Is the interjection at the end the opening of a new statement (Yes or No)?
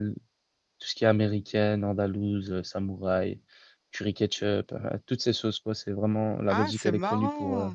Yes